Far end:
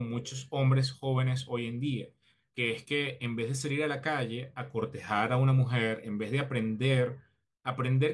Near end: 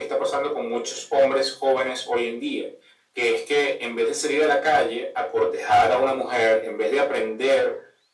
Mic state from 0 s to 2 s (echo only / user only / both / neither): echo only